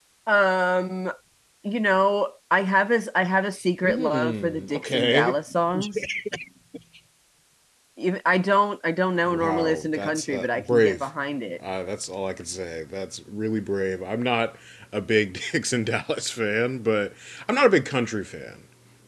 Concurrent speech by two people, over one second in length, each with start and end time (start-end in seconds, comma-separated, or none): 3.8-5.3, 9.3-11.0